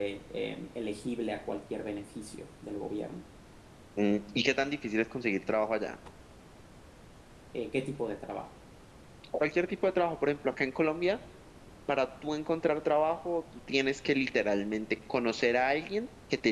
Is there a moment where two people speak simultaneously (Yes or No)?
No